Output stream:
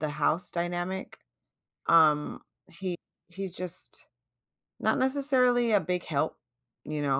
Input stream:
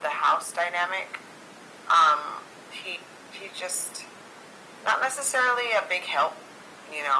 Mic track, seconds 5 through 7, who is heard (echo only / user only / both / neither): echo only